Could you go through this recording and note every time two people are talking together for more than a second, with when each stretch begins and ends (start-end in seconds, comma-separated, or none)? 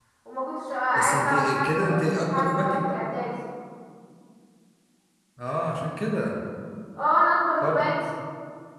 0.9-2.9